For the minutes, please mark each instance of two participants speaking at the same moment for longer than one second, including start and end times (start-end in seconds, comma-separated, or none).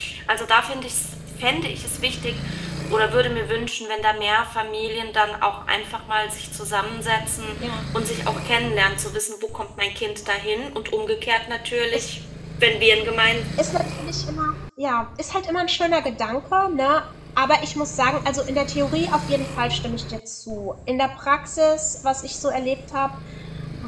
none